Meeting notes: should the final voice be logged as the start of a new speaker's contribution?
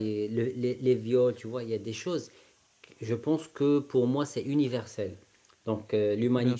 No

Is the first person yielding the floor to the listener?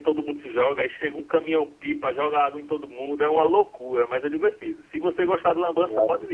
No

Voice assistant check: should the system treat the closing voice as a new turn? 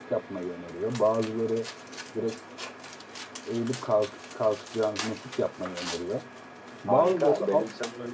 Yes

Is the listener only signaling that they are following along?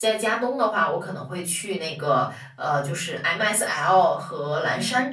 Yes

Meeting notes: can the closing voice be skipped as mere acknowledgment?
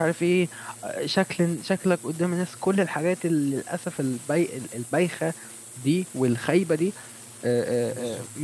Yes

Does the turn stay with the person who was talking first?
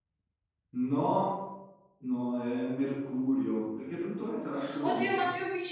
No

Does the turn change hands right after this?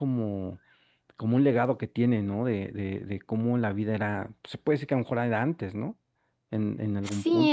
Yes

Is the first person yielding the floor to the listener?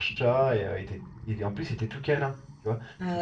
No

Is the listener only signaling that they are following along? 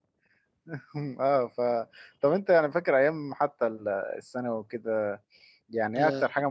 Yes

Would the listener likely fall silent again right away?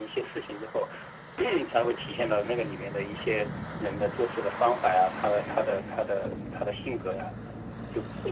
No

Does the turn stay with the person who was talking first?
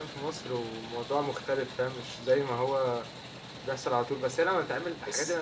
Yes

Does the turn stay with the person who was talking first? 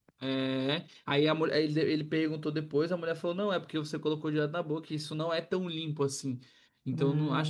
Yes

